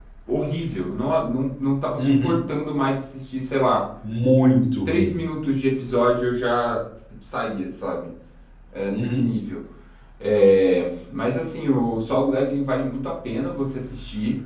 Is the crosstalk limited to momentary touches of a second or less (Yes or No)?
Yes